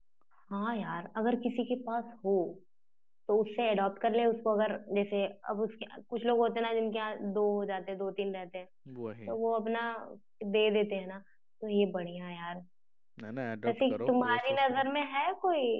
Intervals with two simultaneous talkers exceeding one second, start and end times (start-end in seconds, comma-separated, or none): 13.7-14.9